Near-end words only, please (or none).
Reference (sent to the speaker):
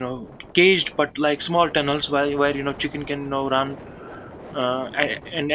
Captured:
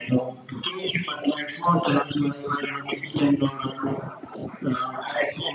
none